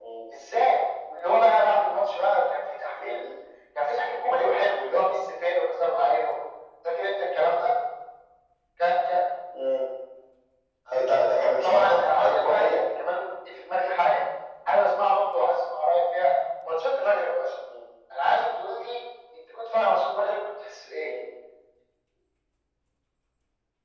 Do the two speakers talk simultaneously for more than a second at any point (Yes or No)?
Yes